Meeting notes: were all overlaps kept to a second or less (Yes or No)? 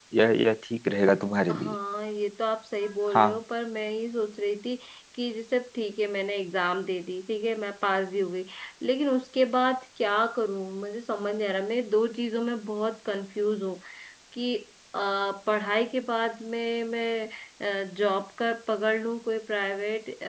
Yes